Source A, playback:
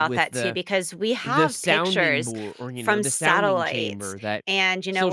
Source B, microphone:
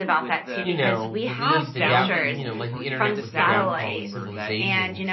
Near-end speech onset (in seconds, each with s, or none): 0.6 s